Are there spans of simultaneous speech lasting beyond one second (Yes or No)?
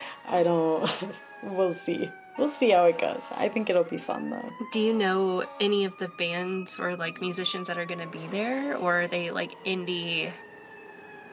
No